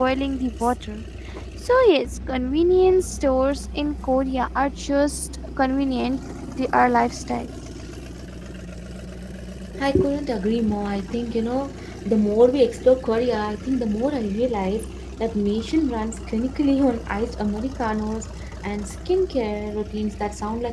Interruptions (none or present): none